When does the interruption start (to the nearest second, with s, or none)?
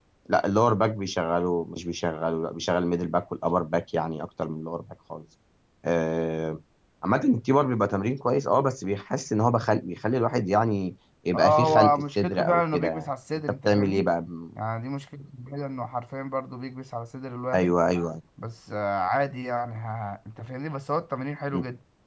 11 s